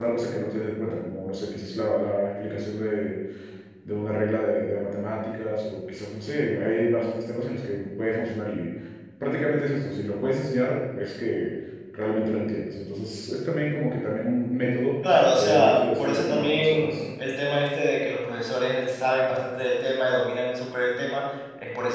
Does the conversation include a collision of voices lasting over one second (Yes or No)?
Yes